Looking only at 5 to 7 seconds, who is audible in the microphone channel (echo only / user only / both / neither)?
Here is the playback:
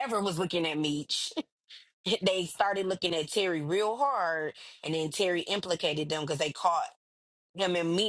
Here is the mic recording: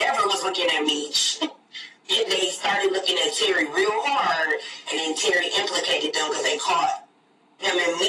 echo only